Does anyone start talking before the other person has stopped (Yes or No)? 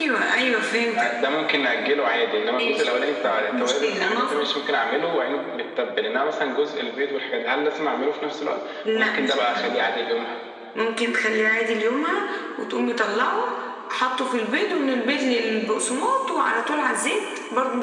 Yes